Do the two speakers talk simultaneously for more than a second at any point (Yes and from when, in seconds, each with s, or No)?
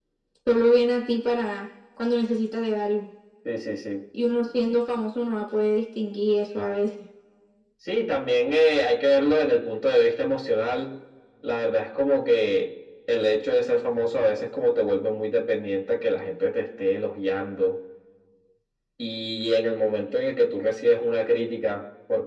No